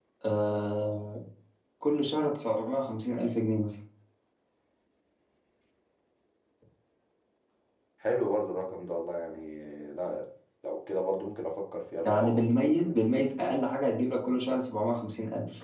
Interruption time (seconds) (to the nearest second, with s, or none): 12 s